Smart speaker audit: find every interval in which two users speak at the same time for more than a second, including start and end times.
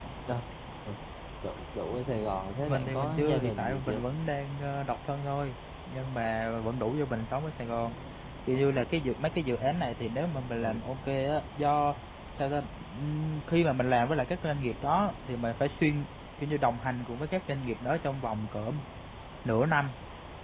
2.6-4.0

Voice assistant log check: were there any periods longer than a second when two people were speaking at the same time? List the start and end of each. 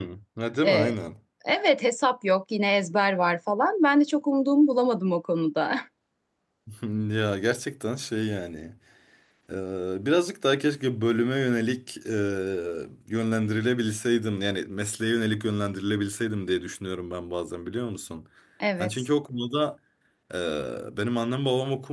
none

